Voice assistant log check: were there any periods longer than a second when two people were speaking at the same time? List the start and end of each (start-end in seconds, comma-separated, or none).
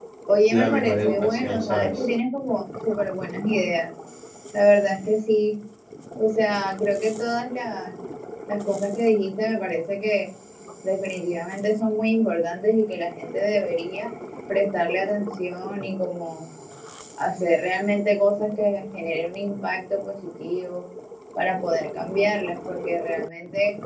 0.5-2.0